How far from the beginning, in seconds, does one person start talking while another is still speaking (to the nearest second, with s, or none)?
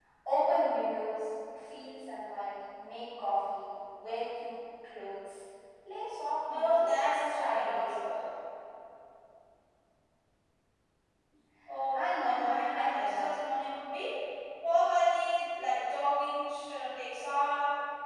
6 s